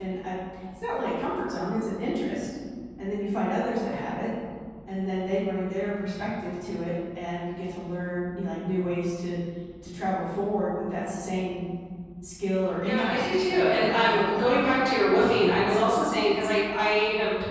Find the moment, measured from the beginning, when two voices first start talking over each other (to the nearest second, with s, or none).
13 s